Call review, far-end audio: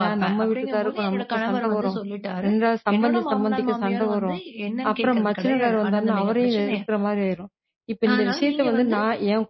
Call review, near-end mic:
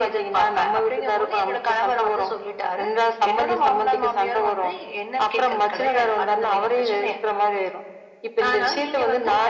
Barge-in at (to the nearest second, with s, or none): none